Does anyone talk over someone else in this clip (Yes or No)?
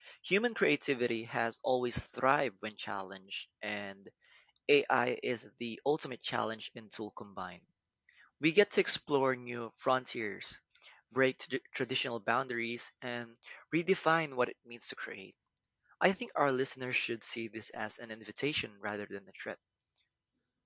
No